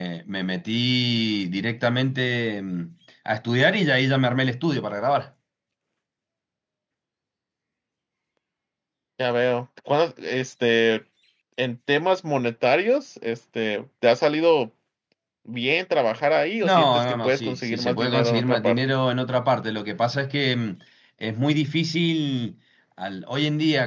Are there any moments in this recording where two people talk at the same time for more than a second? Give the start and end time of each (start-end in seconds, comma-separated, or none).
16.6-19.0